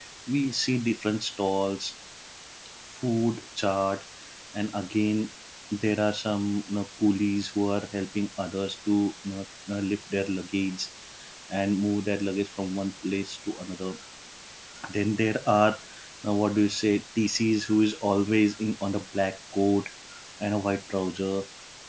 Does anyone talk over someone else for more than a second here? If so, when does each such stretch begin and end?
none

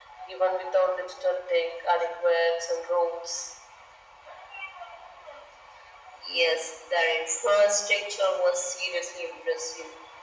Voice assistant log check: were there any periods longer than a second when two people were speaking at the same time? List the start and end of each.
none

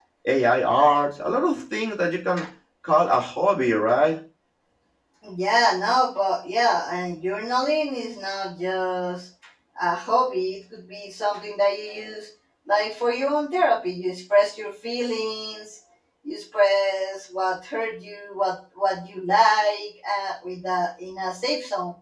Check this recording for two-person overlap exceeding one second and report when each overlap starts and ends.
none

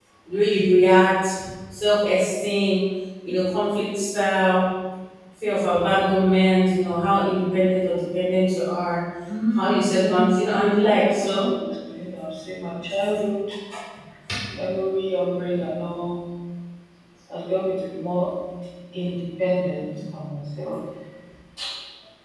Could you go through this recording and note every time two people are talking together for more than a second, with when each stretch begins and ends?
9.6-11.4

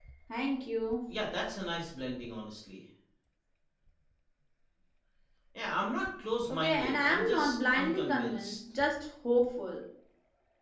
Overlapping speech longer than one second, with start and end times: 6.5-8.6

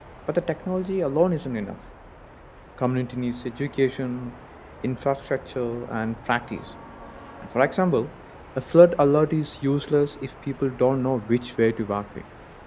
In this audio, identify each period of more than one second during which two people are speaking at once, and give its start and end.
none

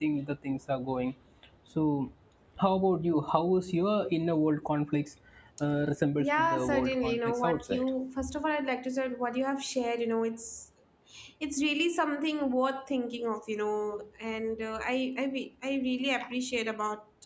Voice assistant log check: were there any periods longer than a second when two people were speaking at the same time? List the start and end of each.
6.2-7.9

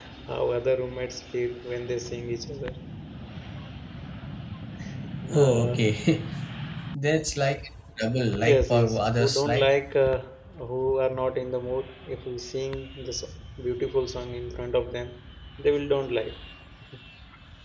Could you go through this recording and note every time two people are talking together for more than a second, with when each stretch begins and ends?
8.5-9.7

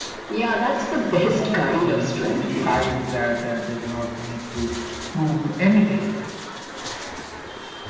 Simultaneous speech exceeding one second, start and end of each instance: 1.3-2.9

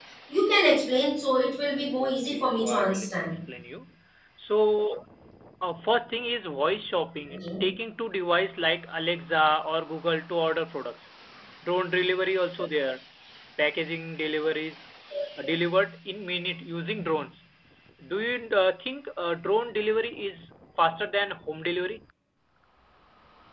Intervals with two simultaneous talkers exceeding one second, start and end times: 2.0-3.3

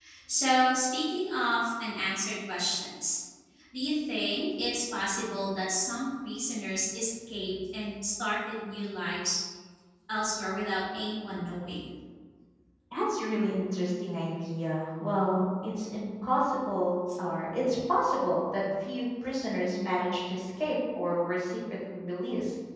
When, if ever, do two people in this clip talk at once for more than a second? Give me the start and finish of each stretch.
none

